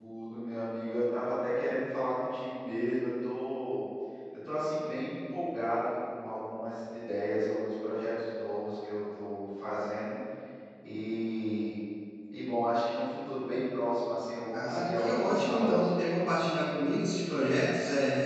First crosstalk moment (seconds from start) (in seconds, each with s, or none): 14.5 s